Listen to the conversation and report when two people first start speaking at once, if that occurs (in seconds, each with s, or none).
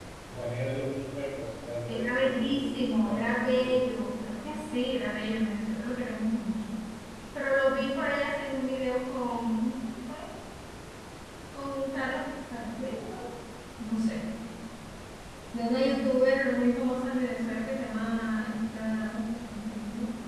1.9 s